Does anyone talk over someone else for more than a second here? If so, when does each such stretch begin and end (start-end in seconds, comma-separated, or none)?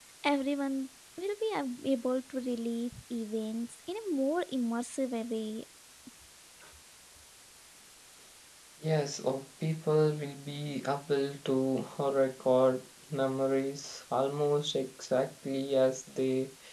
none